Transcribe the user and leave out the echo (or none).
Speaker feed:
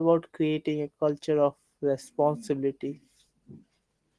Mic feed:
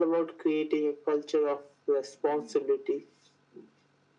none